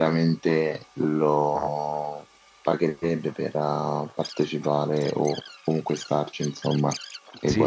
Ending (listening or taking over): taking over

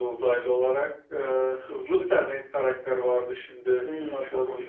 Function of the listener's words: taking over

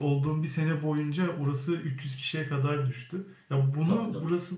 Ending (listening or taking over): listening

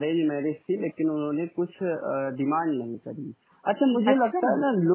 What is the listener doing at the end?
listening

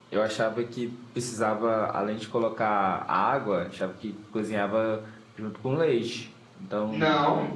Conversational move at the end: taking over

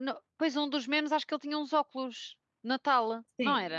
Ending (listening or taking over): taking over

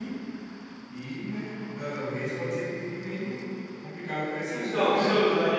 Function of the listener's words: taking over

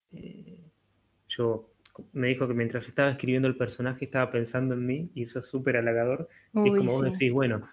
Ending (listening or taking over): listening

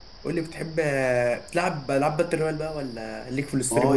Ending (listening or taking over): taking over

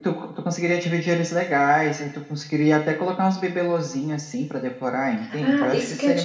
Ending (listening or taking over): taking over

